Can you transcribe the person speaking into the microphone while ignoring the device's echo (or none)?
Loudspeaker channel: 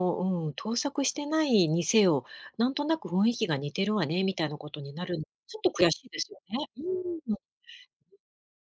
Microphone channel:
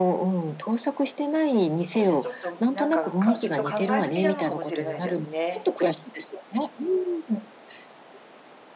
少しちょっと、むん、なんか、かずっと考え過ぎなのかもしれないですね。